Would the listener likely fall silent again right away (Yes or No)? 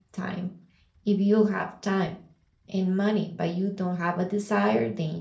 Yes